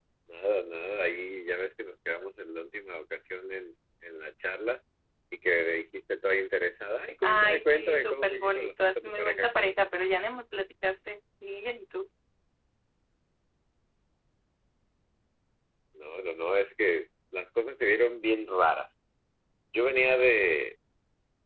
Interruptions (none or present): present